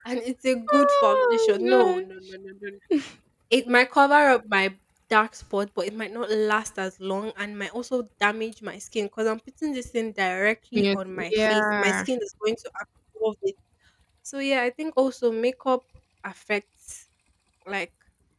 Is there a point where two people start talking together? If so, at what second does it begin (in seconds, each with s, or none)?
0.7 s